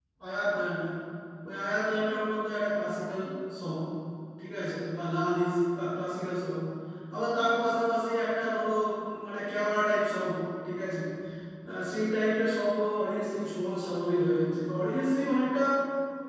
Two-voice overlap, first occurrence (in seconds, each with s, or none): none